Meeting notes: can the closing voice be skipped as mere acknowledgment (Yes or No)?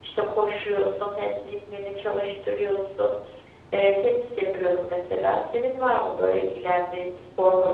No